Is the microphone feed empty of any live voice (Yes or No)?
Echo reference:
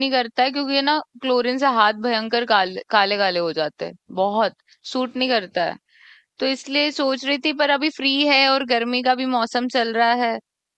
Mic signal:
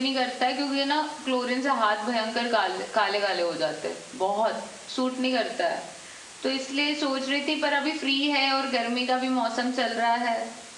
Yes